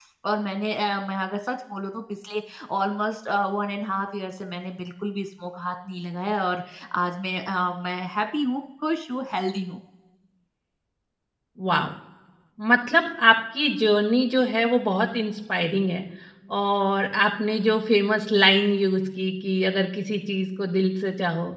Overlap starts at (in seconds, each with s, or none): none